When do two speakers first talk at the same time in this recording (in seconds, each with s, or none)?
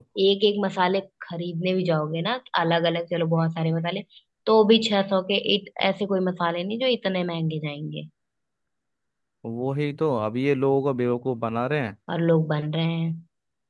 none